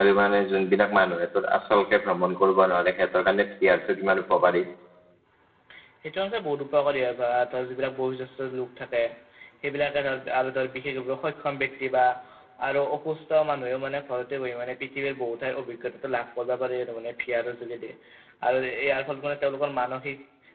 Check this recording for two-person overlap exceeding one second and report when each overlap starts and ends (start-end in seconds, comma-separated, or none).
none